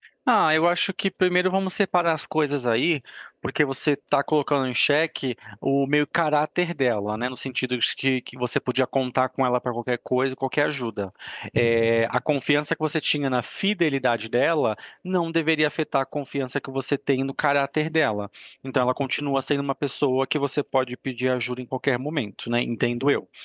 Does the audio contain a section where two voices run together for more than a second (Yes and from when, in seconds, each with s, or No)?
No